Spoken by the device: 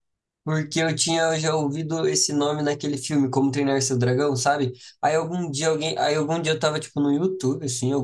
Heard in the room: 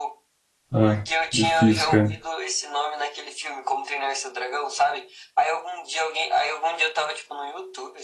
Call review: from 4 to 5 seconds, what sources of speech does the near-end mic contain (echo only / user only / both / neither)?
echo only